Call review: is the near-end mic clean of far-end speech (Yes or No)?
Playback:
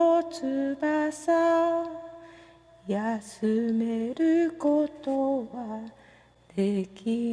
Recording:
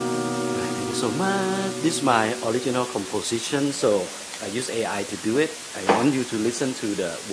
Yes